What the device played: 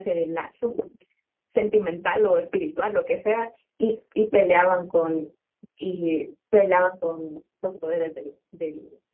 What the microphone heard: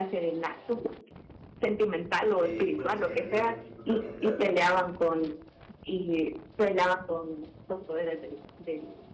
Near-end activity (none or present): present